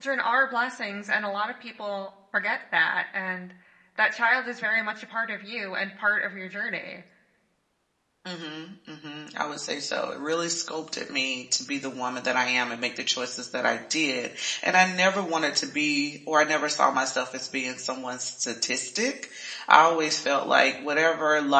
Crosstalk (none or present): none